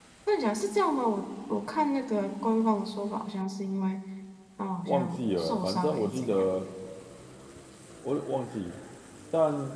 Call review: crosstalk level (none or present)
present